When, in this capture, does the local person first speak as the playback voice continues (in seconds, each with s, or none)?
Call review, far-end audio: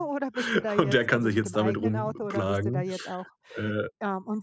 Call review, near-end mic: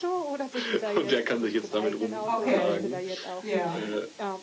2.3 s